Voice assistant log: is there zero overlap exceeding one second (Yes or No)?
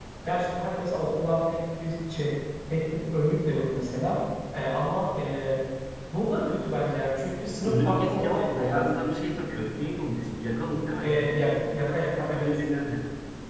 No